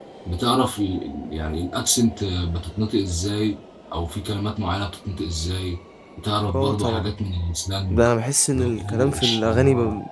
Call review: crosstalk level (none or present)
present